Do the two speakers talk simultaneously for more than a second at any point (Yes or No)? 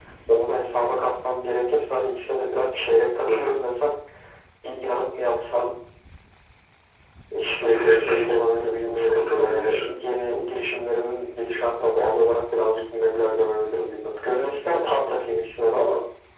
Yes